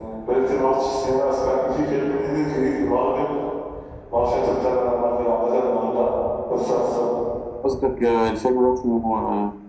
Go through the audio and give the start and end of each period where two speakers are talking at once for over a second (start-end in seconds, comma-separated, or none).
none